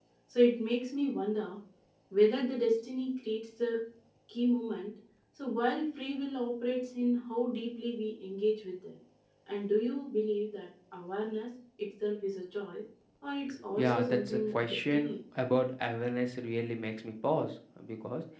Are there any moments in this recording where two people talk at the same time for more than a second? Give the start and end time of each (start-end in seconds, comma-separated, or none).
13.7-15.1